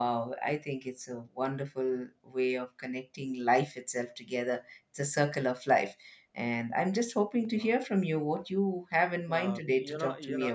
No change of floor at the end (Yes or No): No